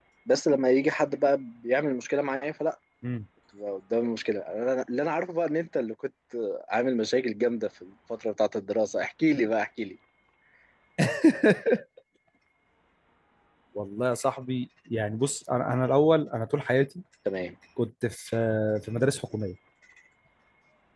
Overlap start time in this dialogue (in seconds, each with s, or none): none